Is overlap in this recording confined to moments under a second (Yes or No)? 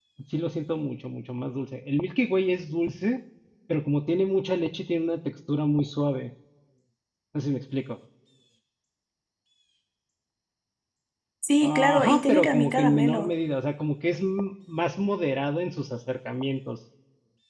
No